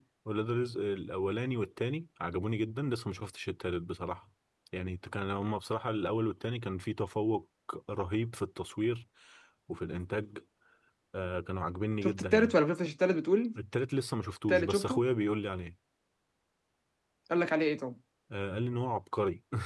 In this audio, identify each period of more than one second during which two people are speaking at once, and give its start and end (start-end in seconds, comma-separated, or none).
none